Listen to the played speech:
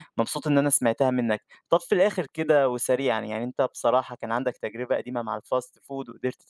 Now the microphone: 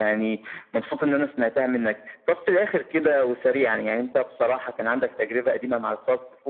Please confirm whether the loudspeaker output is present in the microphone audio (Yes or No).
Yes